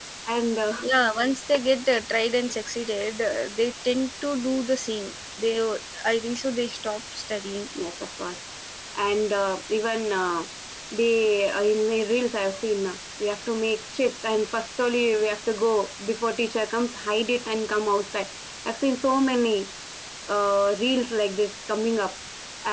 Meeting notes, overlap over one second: none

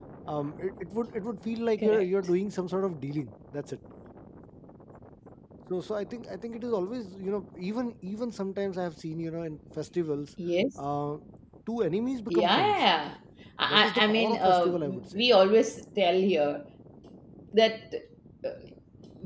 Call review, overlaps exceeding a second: present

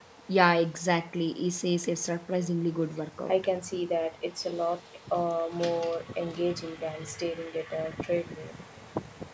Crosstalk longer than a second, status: none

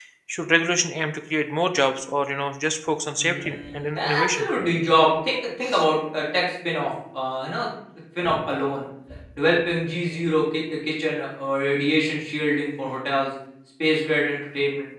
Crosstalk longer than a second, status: present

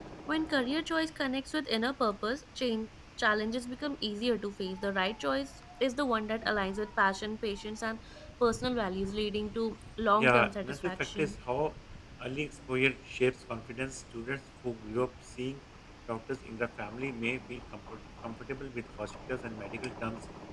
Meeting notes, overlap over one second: present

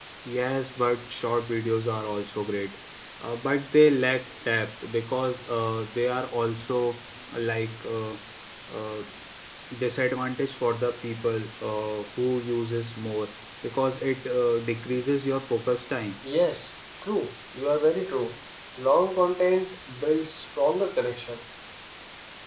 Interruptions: none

